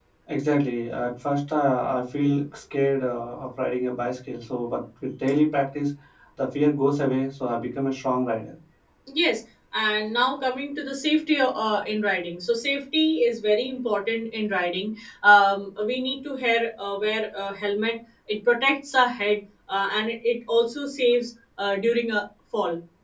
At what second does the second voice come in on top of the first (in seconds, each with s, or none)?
none